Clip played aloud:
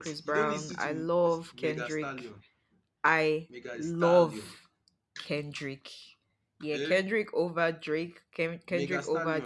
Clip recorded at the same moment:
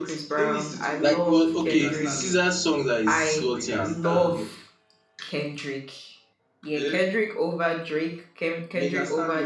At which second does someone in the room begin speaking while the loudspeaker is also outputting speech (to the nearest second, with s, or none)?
1 s